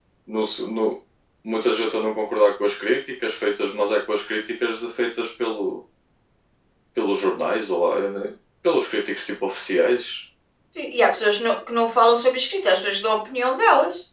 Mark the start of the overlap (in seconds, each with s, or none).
none